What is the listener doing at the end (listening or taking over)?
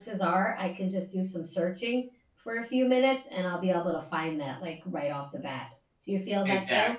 taking over